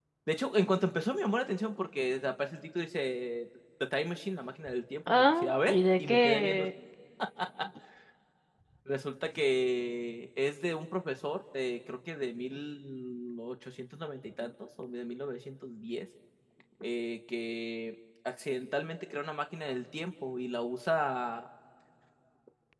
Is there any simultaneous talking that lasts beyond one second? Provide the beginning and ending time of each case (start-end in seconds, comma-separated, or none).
5.1-6.7